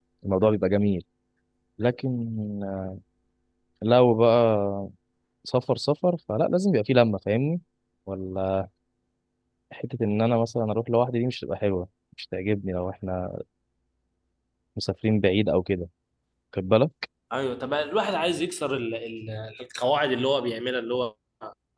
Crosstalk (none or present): none